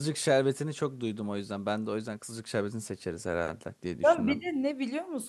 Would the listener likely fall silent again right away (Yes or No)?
No